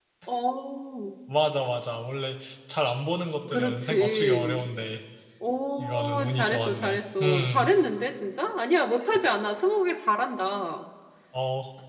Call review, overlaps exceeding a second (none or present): present